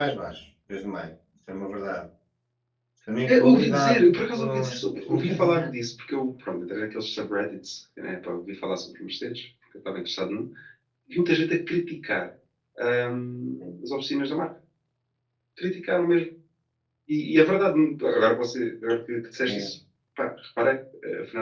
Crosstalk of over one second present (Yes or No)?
Yes